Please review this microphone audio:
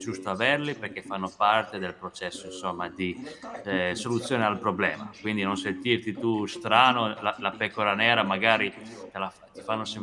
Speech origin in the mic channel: both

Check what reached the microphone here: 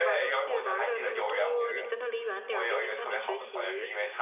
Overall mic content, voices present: both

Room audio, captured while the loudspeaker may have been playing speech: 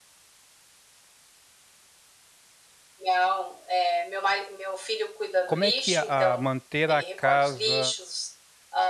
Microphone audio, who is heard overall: both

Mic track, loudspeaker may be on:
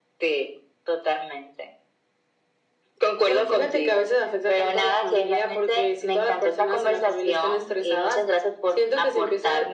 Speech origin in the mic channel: echo only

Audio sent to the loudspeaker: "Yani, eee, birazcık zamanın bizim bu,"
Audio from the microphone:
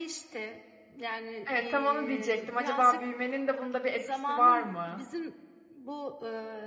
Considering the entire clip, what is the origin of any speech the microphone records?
both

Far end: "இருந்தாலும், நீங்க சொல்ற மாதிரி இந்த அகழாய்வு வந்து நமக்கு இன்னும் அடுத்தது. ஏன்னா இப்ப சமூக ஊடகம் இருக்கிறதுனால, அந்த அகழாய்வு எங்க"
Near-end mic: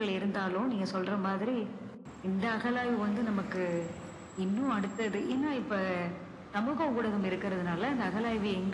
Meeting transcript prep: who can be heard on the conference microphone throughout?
echo only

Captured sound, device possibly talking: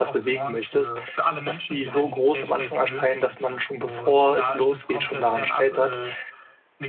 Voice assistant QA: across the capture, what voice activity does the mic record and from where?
both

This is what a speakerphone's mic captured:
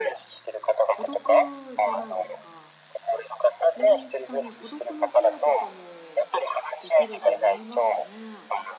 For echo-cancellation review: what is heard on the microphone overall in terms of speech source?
both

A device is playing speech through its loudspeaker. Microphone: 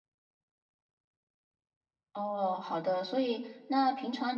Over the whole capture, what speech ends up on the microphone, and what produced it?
user only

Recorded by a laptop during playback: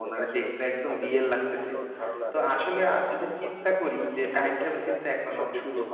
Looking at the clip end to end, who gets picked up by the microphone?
both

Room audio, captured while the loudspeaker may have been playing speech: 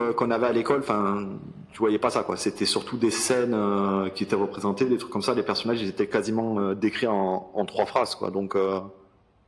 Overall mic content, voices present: echo only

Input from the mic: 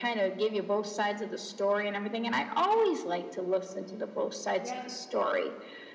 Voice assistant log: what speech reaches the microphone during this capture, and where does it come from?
both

